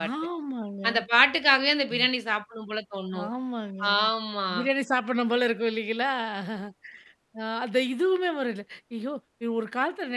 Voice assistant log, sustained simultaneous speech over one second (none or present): none